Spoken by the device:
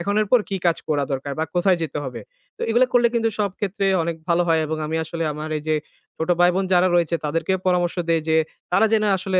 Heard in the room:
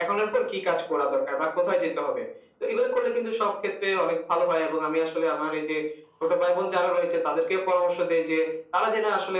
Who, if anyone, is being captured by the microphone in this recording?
echo only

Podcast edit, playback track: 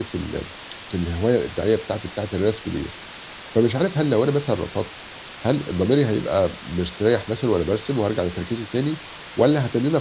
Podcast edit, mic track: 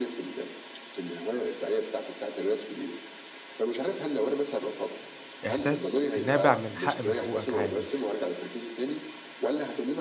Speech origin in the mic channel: both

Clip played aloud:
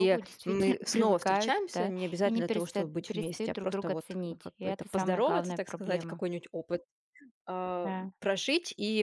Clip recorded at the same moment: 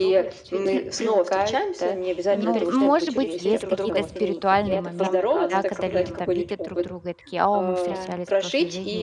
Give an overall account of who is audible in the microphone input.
both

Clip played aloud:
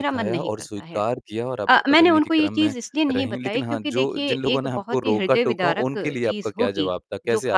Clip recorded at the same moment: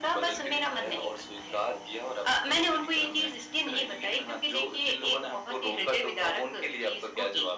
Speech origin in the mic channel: echo only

